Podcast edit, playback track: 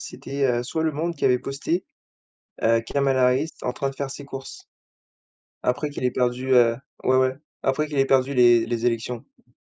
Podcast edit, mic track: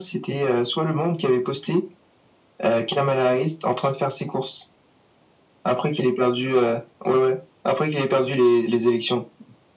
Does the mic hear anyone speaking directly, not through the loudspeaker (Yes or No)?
No